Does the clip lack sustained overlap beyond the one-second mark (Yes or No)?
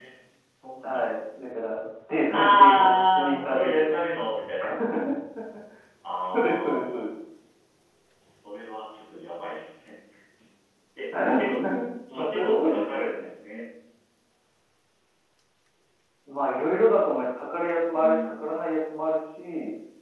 No